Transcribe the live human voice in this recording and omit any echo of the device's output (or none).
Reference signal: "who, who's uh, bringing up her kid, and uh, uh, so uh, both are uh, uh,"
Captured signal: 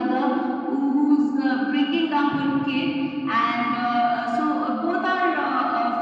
none